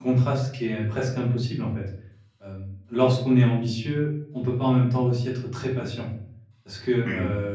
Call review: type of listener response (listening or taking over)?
listening